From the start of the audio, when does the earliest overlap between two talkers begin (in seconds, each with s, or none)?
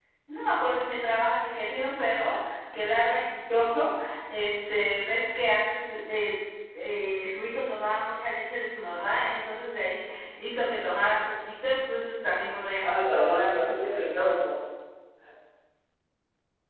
12.8 s